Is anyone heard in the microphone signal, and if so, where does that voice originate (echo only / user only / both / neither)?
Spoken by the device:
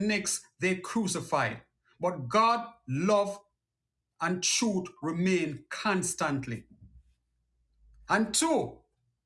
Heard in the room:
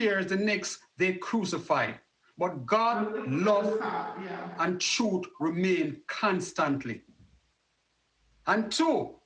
both